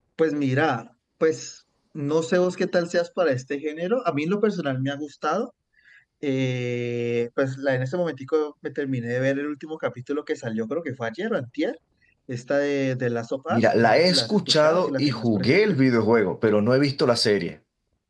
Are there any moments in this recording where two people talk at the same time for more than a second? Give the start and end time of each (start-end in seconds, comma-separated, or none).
13.5-15.8